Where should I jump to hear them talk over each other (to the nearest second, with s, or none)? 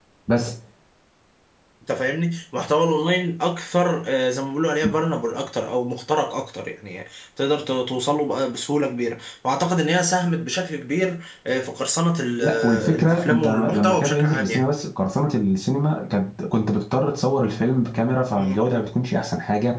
12 s